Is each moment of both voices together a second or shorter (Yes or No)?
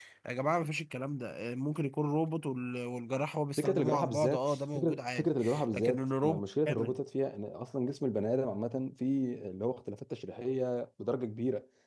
No